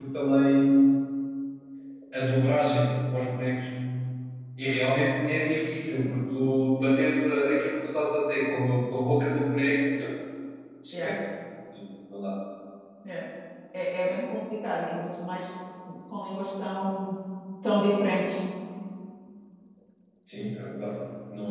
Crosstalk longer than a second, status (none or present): none